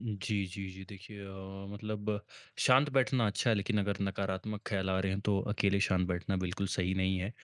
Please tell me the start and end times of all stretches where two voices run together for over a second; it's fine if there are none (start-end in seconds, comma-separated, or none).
none